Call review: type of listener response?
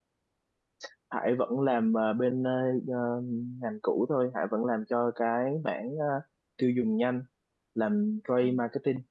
listening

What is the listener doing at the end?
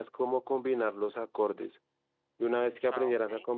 listening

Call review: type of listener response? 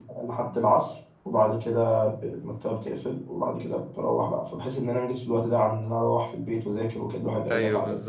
taking over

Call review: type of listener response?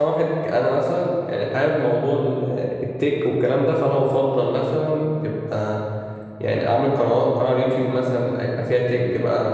listening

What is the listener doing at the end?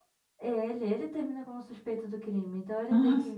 listening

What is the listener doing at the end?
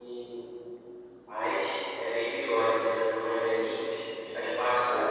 taking over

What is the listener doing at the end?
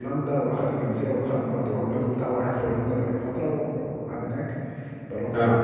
listening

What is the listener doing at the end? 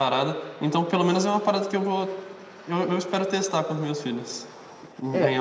taking over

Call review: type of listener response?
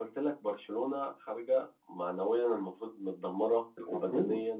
listening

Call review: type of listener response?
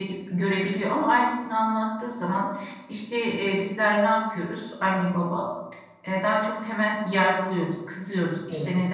listening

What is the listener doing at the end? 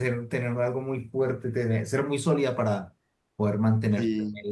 taking over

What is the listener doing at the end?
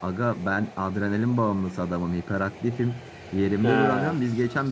listening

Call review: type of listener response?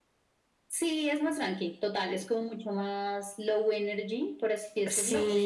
listening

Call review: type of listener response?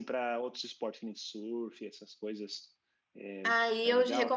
taking over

